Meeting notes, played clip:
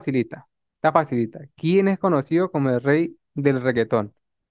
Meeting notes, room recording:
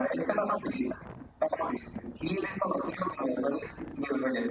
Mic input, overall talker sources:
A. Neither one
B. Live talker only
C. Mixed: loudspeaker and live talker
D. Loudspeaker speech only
D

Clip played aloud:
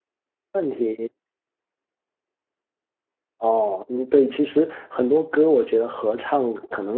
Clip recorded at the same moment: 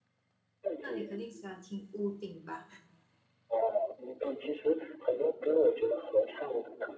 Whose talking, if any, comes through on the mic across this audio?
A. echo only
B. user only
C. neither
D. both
D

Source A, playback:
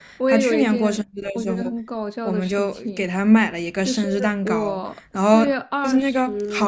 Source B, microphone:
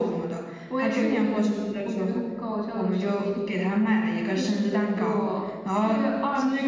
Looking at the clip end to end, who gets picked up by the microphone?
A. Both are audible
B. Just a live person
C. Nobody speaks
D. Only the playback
D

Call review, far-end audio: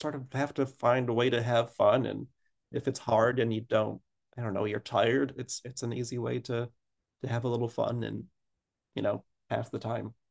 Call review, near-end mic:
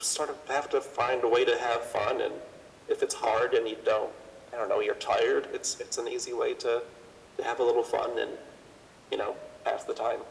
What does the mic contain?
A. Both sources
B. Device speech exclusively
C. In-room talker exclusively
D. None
B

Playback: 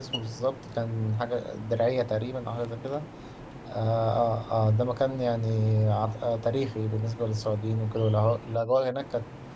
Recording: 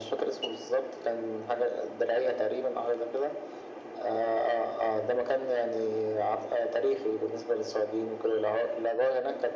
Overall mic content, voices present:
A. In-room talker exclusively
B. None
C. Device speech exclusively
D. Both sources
C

